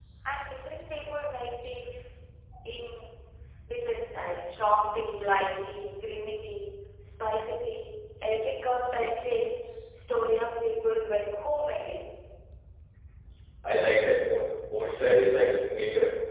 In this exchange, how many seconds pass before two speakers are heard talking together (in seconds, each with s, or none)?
none